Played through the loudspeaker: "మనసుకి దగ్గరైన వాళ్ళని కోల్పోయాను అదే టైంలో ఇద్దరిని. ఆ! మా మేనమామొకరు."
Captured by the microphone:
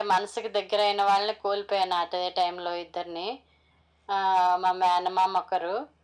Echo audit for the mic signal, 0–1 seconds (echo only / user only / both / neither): echo only